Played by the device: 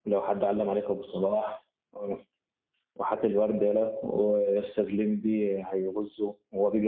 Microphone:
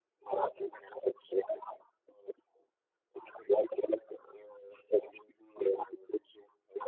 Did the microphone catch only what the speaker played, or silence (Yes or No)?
Yes